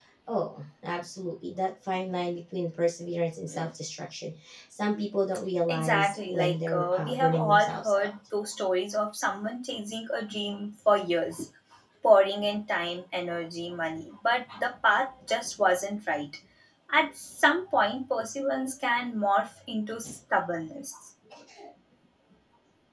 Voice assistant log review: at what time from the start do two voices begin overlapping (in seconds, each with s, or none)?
5.7 s